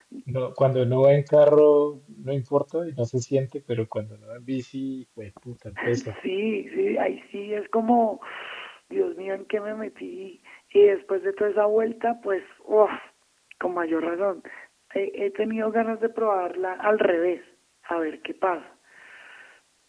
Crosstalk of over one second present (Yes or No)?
No